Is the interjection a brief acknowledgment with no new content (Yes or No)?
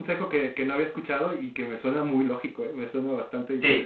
No